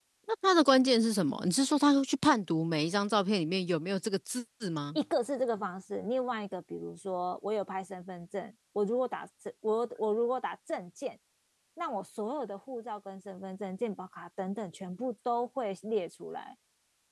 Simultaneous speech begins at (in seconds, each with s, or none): none